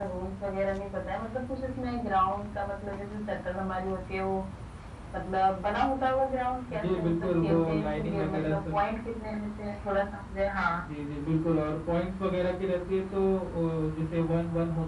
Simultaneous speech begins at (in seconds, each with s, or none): 6.7 s